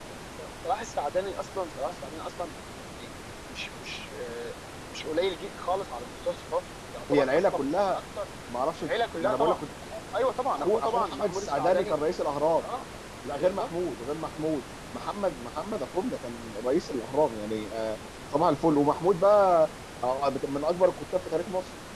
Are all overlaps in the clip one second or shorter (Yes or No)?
No